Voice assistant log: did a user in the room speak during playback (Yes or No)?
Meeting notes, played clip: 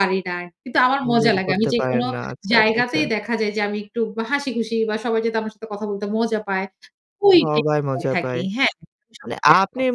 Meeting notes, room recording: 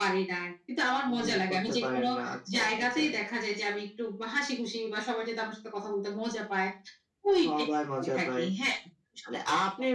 No